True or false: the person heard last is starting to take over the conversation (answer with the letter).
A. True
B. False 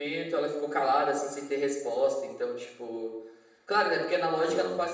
B